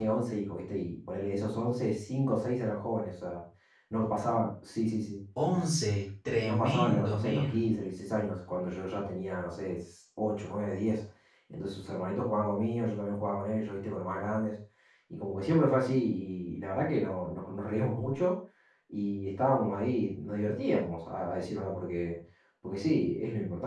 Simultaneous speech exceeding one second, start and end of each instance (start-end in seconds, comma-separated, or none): 6.4-7.7